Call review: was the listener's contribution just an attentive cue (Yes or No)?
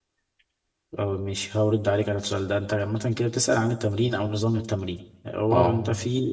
Yes